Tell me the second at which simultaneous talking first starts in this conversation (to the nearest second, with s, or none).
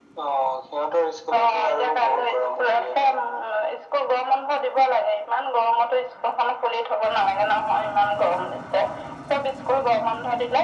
1 s